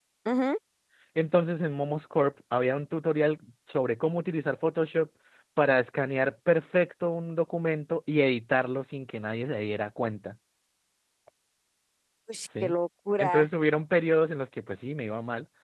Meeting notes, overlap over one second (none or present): none